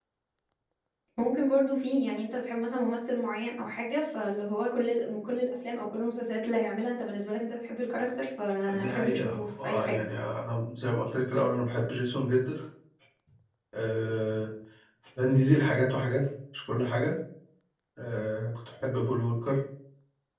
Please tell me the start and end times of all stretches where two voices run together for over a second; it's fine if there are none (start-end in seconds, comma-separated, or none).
8.7-10.0